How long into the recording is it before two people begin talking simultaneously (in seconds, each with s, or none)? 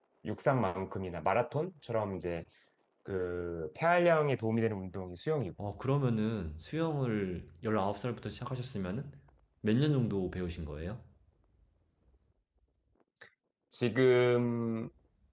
none